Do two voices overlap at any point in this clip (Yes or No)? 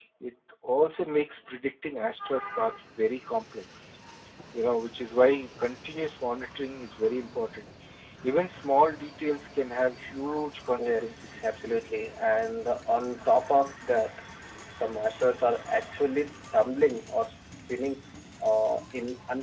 Yes